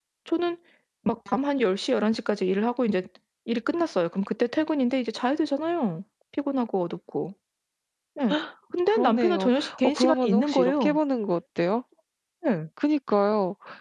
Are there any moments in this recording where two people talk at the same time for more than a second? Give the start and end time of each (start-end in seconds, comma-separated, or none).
8.9-11.0